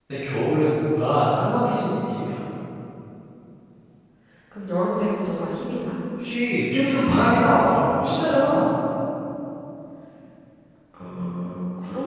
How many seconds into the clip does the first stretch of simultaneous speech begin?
none

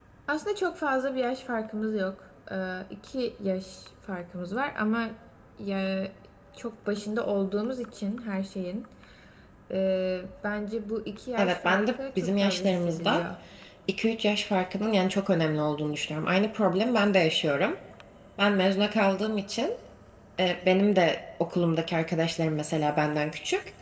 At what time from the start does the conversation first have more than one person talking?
11.4 s

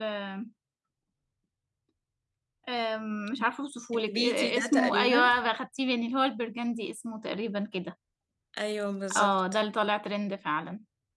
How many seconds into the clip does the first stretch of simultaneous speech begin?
3.9 s

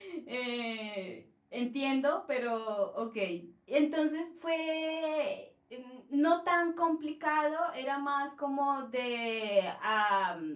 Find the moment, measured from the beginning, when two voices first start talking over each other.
none

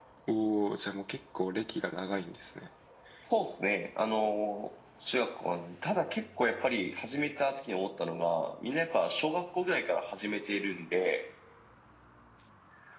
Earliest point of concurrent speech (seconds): none

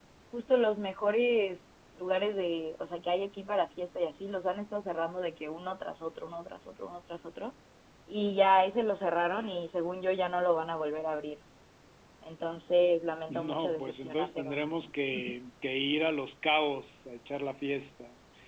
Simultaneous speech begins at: 13.3 s

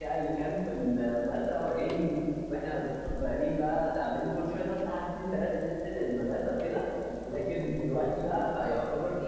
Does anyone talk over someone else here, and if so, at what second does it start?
none

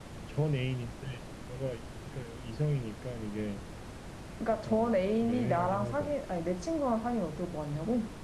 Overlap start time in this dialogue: 4.7 s

